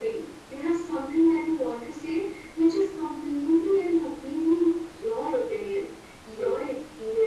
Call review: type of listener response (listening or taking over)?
listening